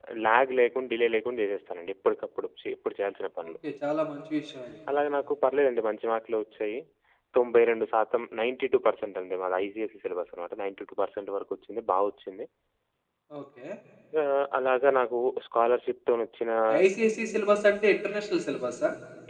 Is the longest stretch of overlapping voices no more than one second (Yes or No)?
Yes